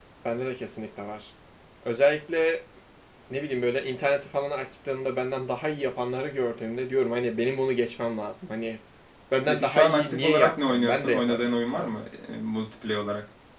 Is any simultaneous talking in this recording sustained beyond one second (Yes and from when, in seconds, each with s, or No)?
Yes, from 9.5 s